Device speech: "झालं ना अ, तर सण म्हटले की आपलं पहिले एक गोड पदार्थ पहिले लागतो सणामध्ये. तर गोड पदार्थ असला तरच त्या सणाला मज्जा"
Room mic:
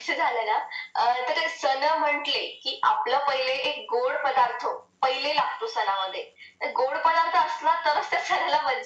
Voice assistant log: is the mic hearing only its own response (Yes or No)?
Yes